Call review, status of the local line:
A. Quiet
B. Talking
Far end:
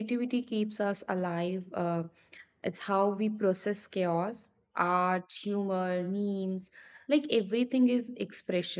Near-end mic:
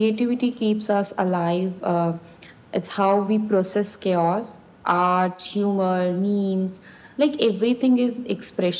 A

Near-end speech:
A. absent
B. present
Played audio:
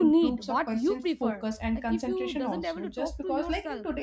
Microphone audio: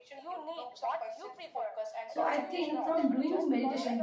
B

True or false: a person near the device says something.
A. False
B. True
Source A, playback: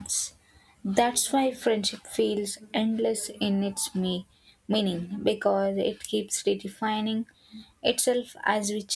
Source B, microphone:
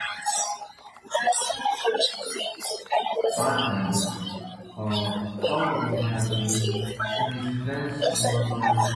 B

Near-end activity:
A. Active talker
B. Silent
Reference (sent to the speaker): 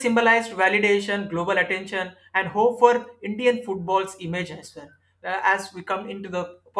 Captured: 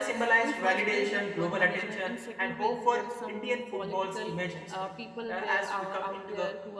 A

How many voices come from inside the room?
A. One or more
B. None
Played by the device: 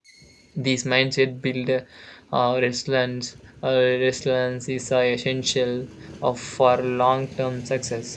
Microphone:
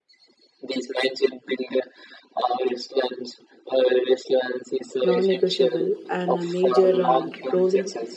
A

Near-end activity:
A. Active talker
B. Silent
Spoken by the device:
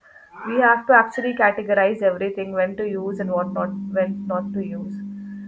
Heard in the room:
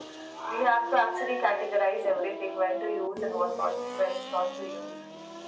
B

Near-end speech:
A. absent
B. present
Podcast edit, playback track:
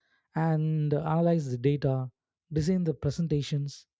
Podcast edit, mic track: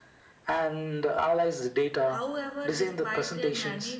B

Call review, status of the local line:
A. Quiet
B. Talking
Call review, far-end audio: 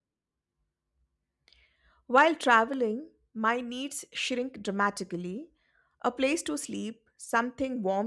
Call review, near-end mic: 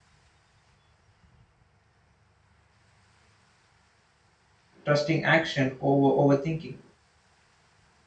B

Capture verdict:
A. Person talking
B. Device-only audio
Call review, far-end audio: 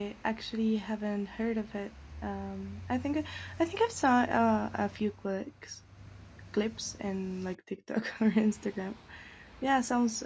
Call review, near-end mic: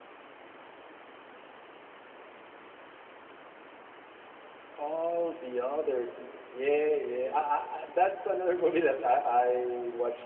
A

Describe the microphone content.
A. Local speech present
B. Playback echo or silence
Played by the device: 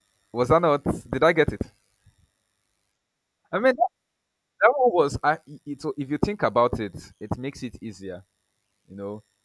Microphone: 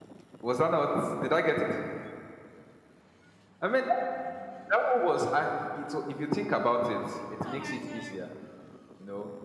A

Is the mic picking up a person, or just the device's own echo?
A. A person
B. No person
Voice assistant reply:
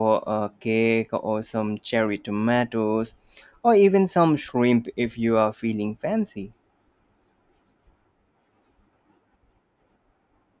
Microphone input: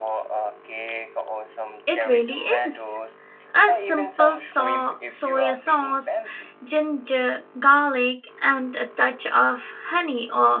A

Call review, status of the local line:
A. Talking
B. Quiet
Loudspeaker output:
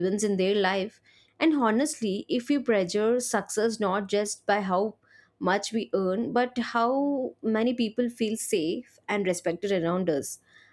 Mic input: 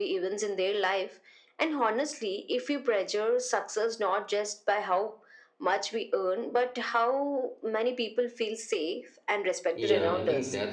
A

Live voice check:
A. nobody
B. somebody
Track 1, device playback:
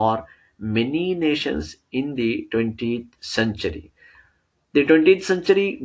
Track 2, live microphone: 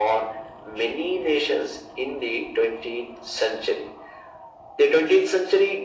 A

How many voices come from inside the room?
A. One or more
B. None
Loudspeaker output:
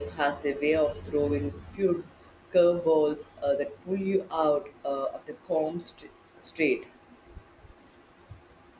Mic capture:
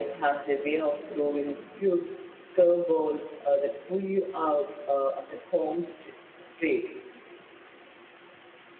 B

